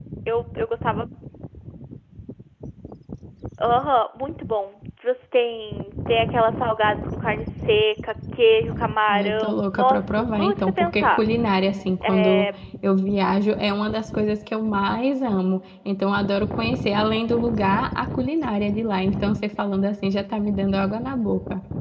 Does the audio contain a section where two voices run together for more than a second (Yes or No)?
Yes